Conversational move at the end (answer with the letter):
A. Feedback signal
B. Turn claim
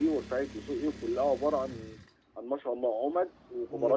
B